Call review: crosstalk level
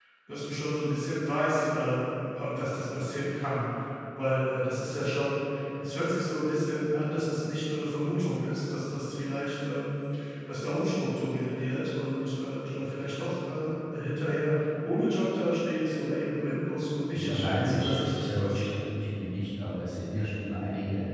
present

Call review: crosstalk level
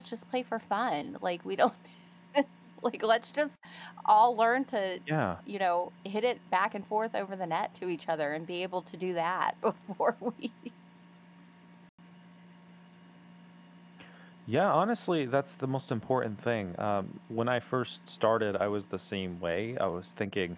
none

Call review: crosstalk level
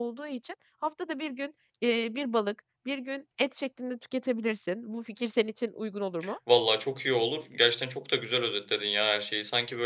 none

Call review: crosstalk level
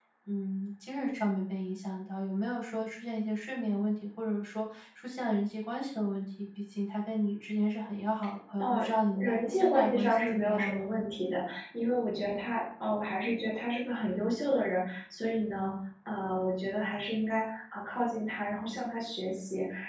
present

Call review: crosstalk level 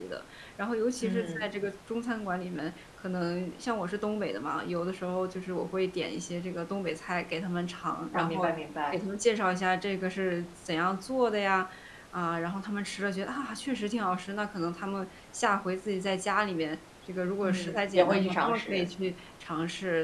present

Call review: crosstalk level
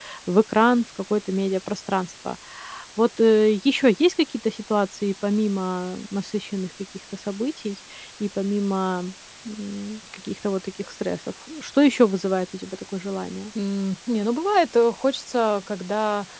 none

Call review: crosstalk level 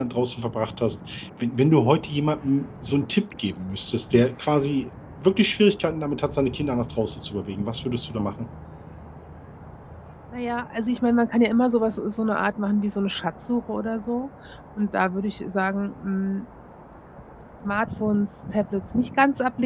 none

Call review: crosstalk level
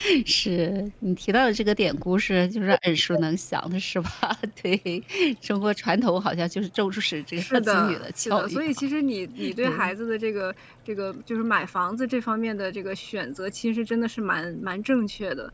present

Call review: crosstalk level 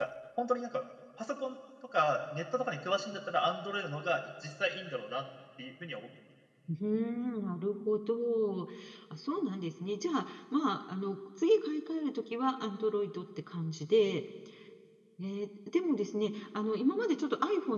none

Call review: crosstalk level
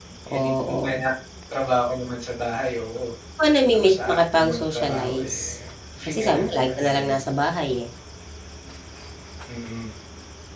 present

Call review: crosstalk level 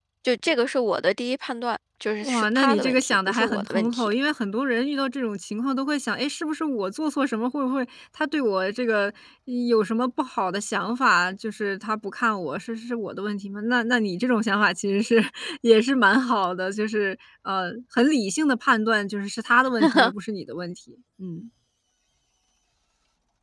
present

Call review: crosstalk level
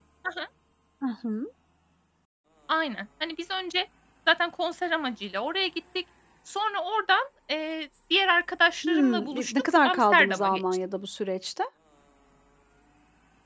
present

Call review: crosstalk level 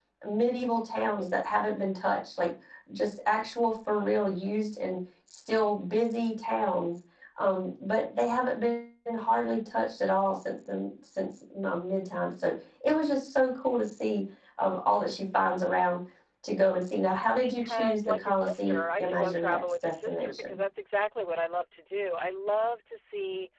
present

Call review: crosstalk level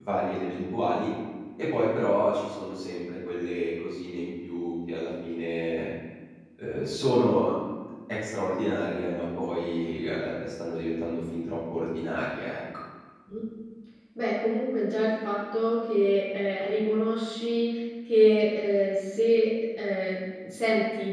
none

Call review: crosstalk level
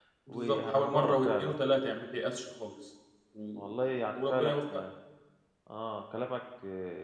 present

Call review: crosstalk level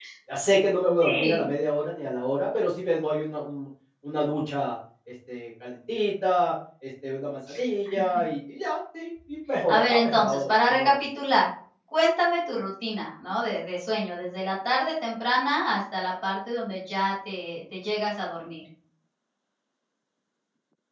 present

